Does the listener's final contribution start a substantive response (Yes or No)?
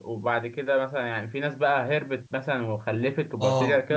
Yes